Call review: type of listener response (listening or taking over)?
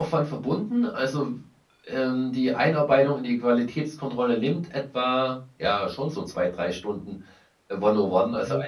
listening